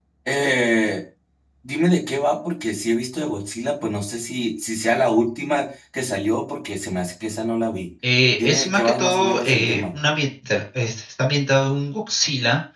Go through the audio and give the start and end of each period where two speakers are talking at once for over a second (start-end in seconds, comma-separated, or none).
8.4-9.8